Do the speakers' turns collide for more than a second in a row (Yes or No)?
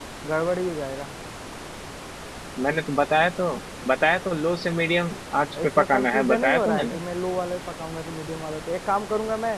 Yes